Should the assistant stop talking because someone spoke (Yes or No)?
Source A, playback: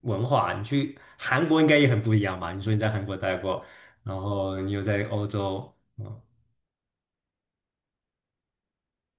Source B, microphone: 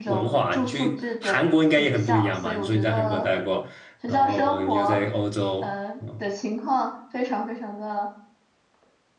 Yes